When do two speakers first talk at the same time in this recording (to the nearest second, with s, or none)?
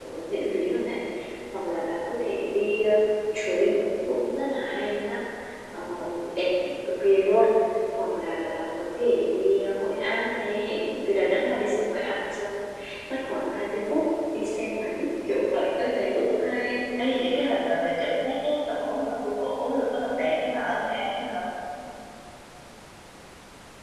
none